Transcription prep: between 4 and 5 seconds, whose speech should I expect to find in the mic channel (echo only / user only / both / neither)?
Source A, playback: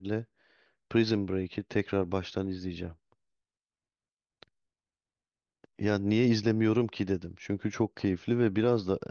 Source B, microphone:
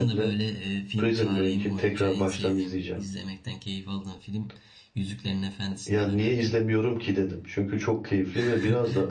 user only